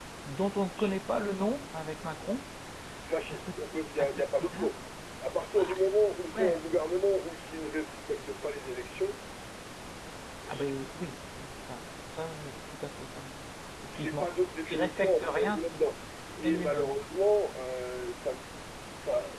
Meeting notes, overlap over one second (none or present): present